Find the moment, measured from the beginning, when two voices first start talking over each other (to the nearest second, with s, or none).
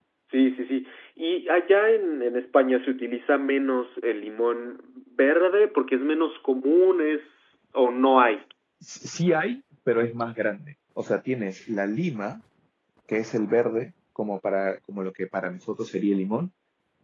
none